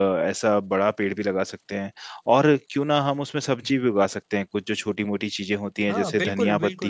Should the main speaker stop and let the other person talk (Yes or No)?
Yes